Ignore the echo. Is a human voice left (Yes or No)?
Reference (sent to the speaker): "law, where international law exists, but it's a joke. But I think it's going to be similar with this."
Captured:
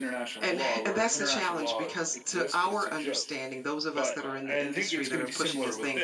Yes